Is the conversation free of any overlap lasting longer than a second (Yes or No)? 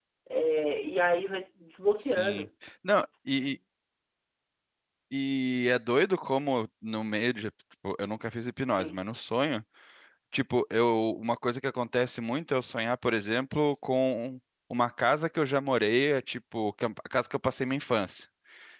Yes